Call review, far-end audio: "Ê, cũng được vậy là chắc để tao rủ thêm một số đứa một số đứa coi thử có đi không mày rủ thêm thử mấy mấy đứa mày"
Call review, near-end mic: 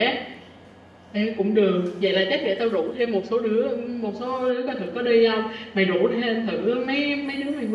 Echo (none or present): present